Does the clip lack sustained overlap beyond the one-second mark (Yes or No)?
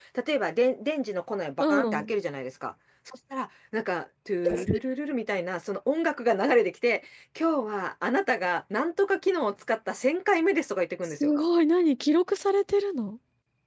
Yes